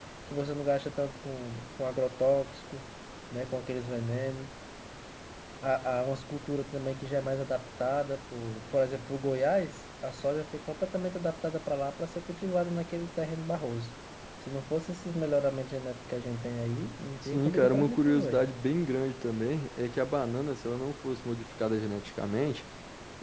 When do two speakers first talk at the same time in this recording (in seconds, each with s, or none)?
17.2 s